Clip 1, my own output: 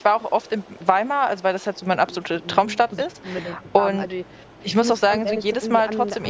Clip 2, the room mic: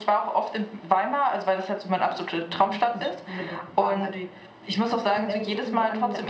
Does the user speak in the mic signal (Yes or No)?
No